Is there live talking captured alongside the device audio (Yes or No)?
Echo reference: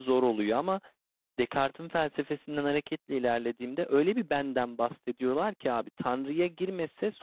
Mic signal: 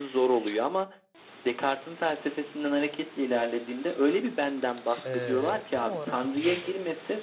Yes